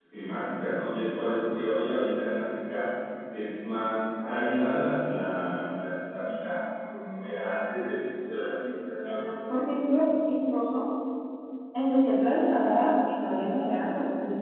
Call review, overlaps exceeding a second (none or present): none